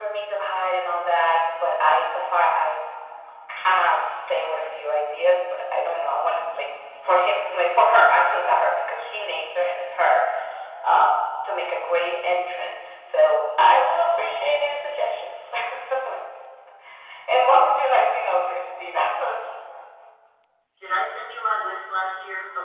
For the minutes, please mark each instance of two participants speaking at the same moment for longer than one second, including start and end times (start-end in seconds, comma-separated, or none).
none